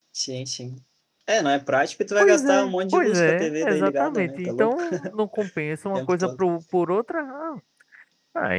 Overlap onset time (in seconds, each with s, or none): 2.2 s